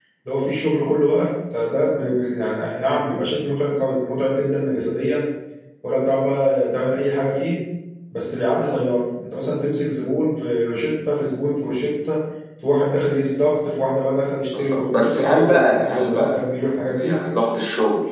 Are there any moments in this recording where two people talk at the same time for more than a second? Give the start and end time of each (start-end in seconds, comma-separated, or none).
14.5-16.4